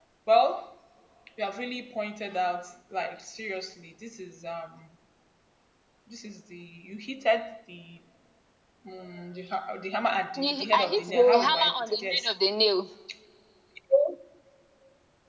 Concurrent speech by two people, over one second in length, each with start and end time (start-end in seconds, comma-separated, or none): 10.4-12.3